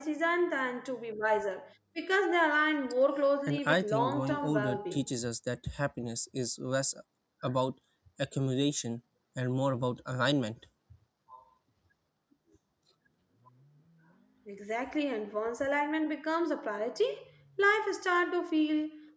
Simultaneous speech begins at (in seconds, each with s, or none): 3.5 s